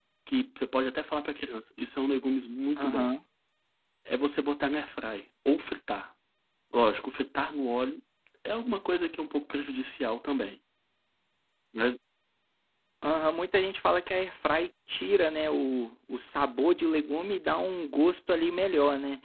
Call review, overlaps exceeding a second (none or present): none